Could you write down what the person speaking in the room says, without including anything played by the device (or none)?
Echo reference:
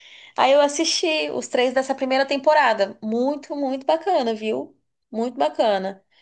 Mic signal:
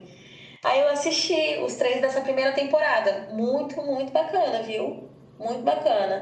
none